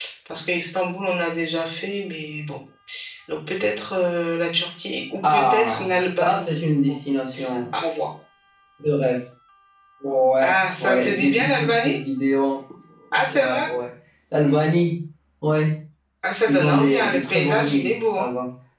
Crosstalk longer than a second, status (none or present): present